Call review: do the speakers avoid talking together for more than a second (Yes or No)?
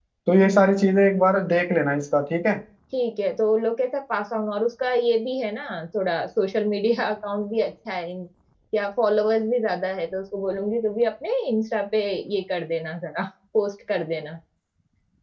Yes